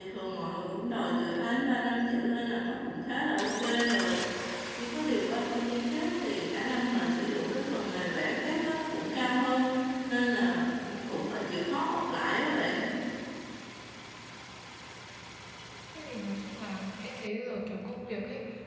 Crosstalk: none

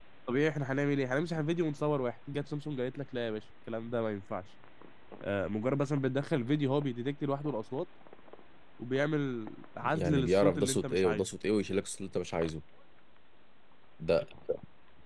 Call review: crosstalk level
present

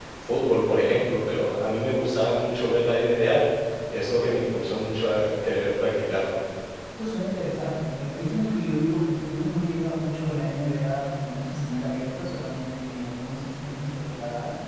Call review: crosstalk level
none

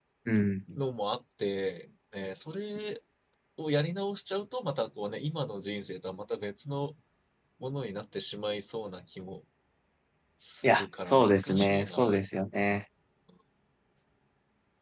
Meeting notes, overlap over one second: present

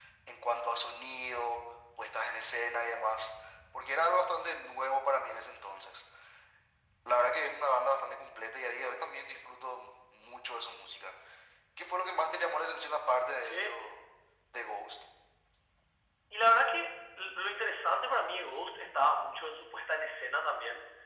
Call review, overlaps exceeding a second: none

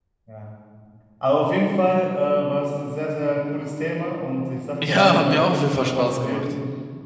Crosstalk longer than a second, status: present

